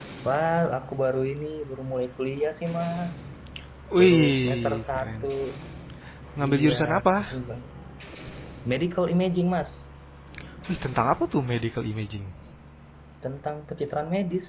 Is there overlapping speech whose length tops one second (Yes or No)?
Yes